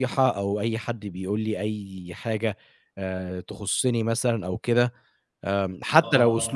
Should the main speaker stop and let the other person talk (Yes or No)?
No